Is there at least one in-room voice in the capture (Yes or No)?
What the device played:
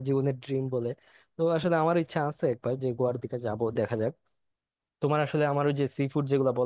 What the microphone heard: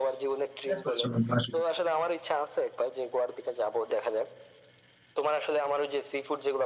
Yes